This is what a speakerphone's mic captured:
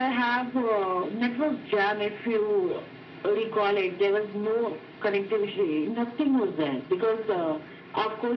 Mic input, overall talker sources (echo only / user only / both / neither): echo only